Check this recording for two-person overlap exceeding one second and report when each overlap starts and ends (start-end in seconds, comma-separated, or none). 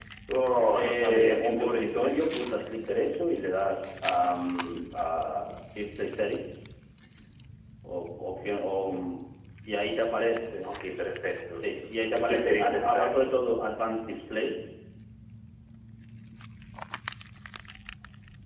0.7-2.3, 12.1-13.3